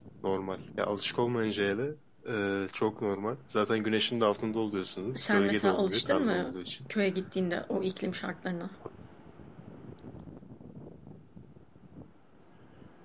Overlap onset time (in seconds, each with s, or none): 5.2 s